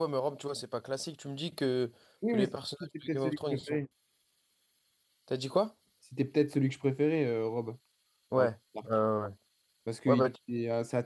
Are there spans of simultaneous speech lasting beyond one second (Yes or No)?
Yes